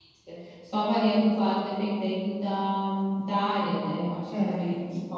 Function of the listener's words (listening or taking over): taking over